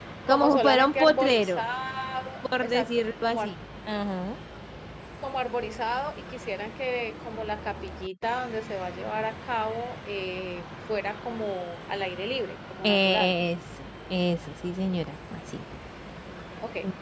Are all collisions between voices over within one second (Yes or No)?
No